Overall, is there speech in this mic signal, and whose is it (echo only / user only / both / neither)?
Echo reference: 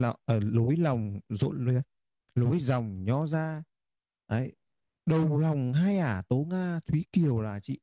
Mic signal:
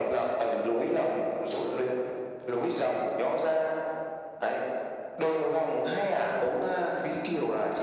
echo only